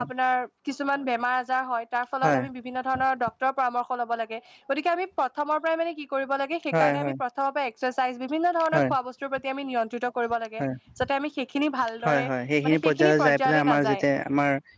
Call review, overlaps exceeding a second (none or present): present